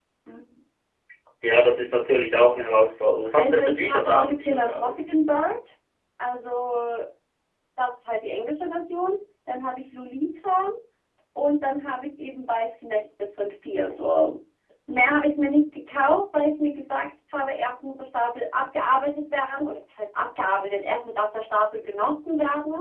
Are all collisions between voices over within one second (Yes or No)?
No